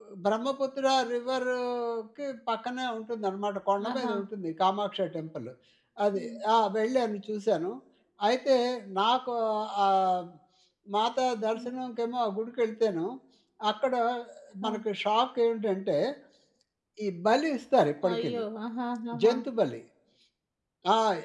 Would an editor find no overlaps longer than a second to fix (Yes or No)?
Yes